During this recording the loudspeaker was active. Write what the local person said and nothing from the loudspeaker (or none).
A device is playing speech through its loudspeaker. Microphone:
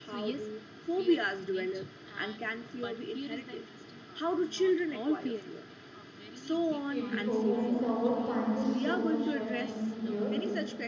Okay, before moving forward, thank you so much for having me here.